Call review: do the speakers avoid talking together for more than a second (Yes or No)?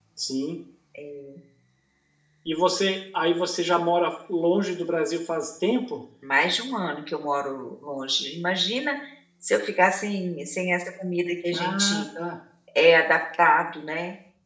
Yes